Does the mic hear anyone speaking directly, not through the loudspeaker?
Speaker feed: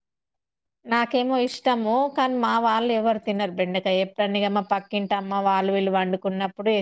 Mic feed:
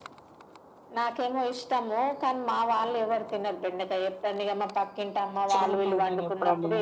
Yes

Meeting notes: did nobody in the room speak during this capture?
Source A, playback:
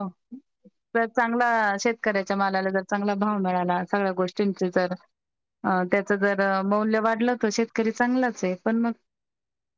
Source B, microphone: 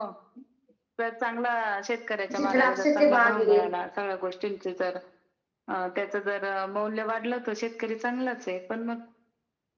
No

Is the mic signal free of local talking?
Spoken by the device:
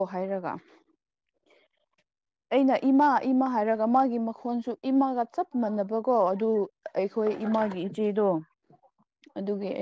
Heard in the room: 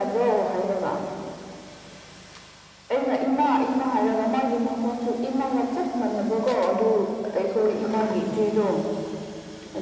Yes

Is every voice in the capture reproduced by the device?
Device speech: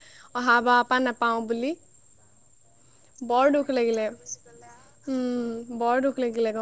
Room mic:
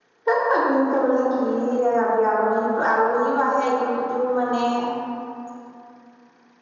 No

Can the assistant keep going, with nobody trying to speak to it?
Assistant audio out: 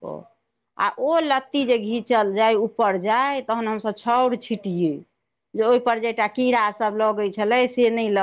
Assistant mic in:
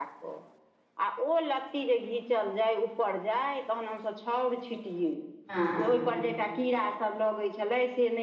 No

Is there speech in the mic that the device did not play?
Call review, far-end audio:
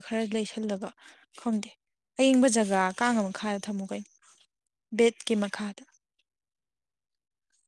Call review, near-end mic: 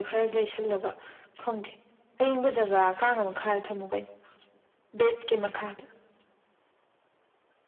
No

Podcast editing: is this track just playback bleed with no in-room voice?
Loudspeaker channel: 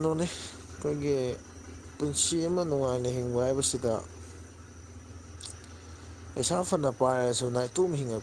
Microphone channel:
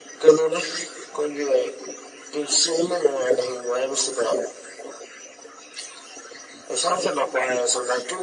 Yes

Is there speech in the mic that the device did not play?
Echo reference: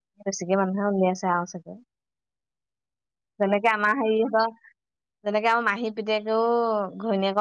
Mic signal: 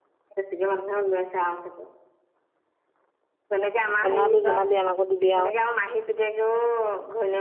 Yes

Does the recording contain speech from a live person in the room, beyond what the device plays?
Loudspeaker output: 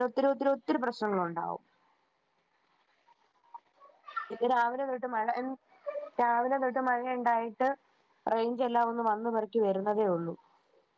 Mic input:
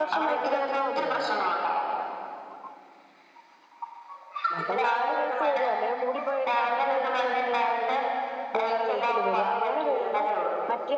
Yes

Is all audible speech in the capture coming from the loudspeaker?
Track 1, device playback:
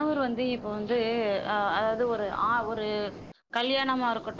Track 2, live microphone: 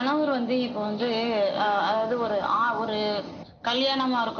No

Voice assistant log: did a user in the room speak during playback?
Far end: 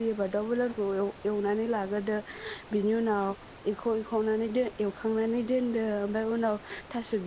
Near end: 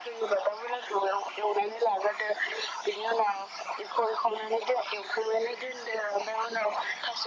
No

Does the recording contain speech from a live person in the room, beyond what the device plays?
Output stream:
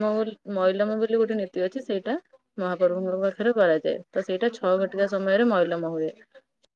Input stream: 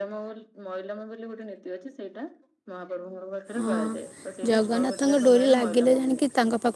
Yes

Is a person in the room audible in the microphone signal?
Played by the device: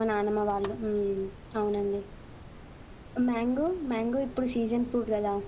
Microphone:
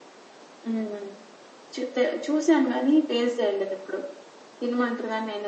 Yes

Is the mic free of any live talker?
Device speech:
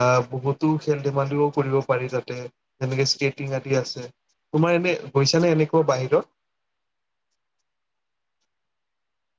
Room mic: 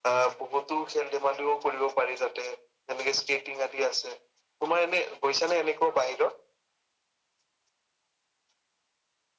Yes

